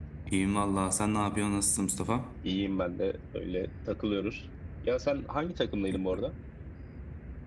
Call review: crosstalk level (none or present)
none